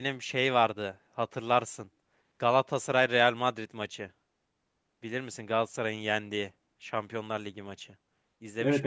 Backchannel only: No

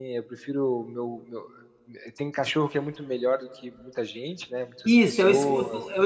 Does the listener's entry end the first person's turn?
Yes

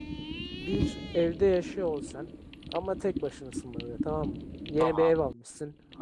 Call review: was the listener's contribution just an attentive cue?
Yes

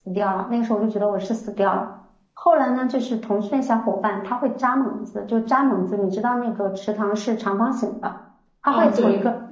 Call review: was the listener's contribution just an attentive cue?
Yes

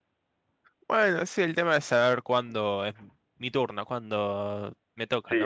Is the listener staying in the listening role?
No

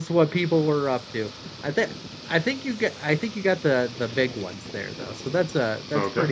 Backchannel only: No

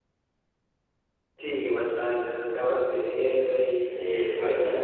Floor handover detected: No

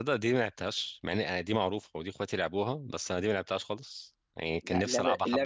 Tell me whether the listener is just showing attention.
No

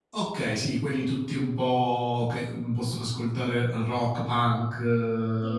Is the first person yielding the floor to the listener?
Yes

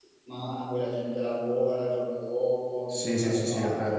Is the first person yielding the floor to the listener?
Yes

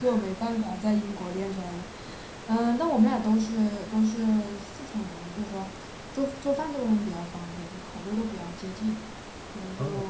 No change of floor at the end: Yes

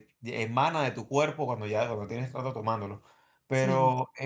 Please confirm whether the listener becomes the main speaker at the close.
No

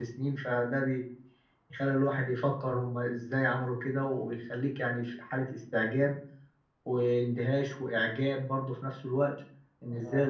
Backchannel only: Yes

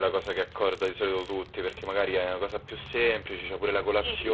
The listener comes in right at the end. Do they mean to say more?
Yes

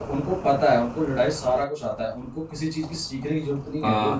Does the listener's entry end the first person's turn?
Yes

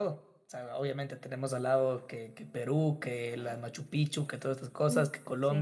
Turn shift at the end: No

